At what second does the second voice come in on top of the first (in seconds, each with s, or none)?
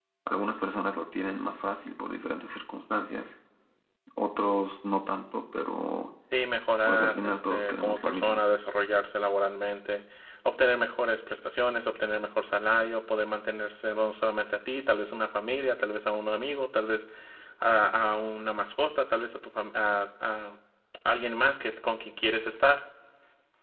6.9 s